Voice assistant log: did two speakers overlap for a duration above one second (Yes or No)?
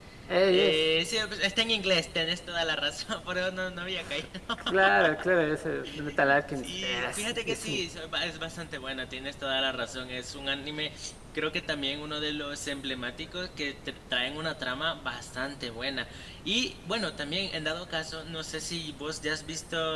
Yes